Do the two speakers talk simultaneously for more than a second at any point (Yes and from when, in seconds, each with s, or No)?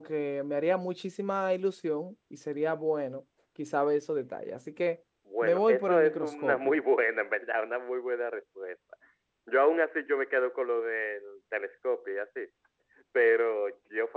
Yes, from 5.4 s